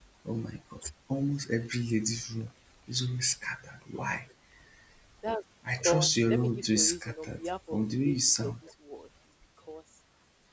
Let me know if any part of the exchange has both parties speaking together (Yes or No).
Yes